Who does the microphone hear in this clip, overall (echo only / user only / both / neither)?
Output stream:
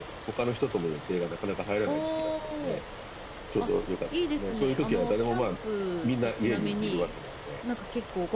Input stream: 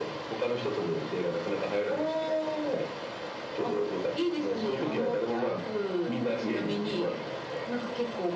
echo only